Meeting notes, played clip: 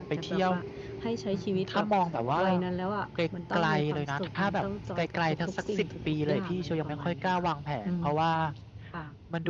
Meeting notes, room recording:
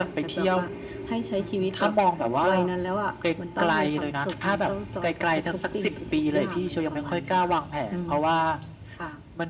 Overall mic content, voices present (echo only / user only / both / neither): echo only